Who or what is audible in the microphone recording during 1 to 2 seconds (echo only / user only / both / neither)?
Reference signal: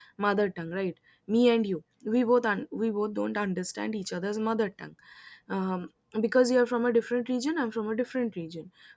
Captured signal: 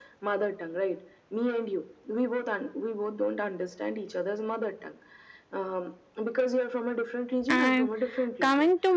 echo only